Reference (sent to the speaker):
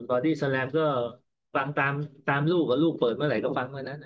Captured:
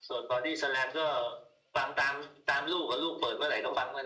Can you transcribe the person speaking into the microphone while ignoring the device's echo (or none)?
none